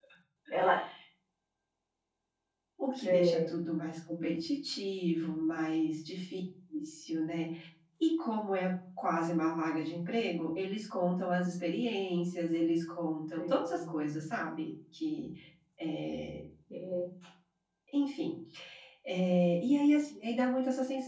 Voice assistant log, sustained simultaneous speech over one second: none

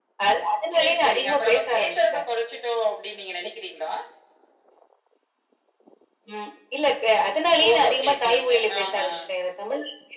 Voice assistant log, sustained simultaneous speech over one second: present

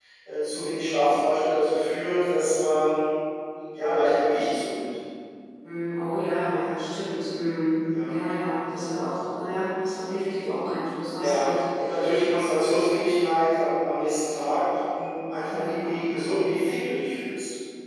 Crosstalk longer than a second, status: none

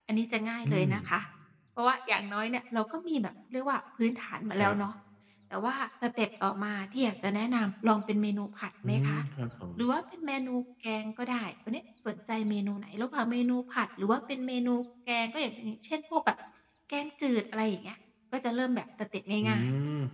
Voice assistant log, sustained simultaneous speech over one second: none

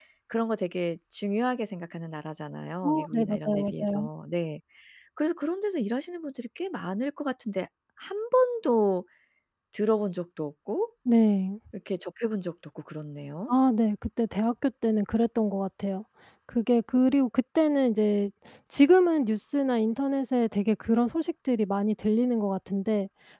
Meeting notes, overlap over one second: present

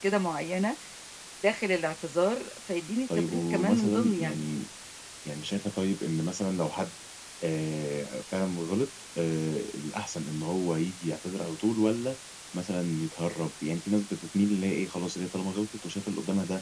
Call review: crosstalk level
present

